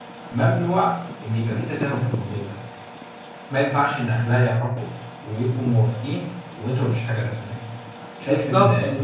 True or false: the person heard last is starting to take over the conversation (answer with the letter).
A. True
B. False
A